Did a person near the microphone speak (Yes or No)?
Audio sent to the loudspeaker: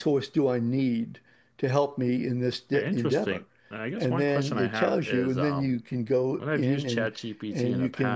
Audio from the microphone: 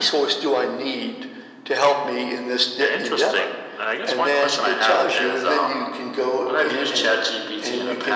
No